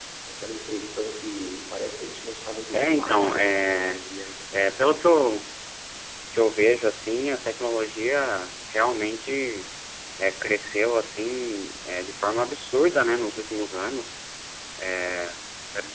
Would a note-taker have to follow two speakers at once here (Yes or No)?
Yes